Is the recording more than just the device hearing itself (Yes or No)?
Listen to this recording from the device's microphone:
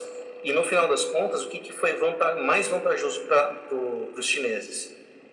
No